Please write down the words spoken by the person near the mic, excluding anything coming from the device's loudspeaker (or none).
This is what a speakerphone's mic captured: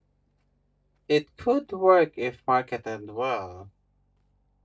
it could work if marketed well,